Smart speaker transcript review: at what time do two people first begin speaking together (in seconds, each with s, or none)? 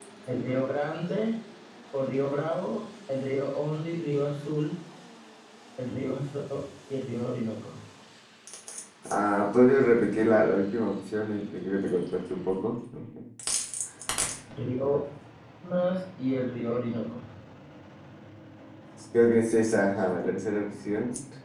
none